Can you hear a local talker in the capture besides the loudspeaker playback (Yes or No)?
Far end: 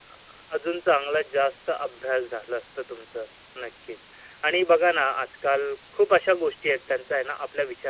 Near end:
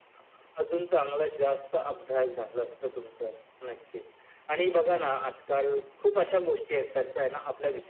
No